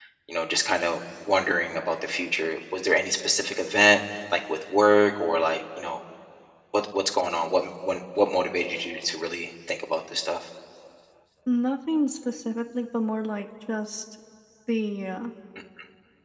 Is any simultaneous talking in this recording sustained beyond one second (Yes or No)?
No